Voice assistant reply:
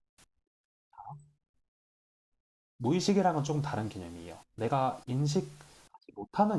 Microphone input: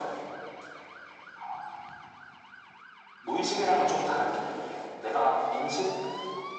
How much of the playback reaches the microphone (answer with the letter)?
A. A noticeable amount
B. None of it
A